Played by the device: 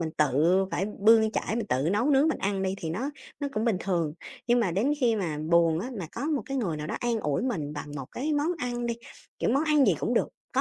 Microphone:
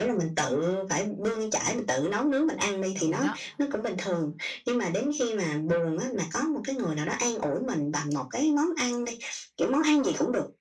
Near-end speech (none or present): present